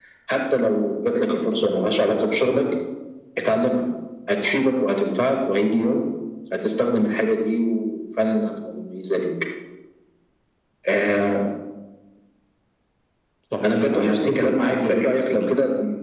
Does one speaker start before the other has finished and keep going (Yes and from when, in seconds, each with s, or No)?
Yes, from 13.6 s